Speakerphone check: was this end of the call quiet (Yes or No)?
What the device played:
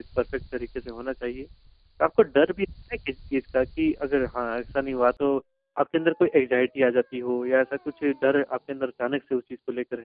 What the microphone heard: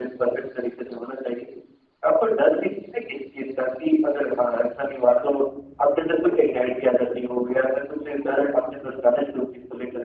Yes